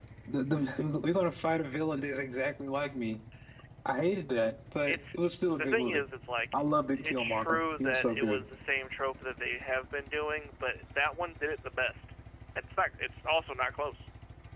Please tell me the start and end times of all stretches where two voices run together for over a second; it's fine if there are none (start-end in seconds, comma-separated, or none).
7.0-8.4